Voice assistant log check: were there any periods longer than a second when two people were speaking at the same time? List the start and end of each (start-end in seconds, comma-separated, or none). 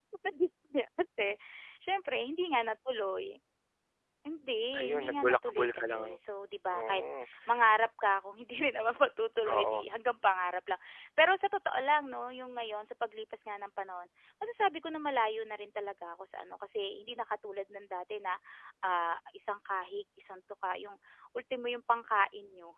4.8-6.2